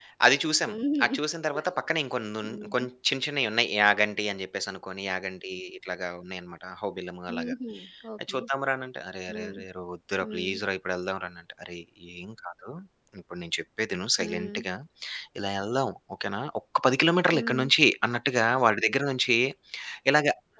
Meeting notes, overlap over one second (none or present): none